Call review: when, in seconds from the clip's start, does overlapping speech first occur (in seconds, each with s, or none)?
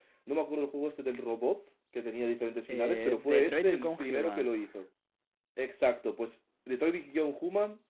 2.7 s